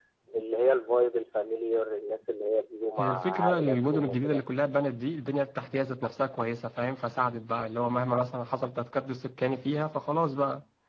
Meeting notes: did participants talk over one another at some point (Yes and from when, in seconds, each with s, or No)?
Yes, from 3.0 s